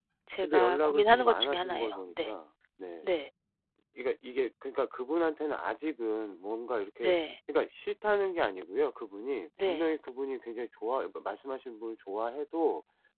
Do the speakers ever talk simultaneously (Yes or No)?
Yes